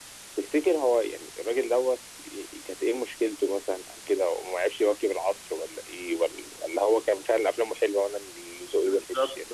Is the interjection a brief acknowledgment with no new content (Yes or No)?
No